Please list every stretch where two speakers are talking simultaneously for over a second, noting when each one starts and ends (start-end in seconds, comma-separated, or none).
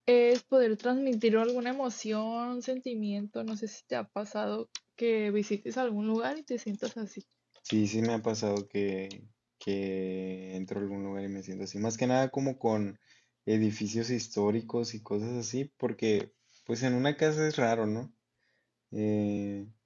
none